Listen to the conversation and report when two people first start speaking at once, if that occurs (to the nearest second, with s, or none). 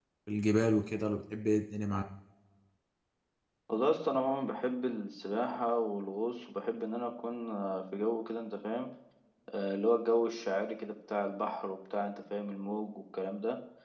none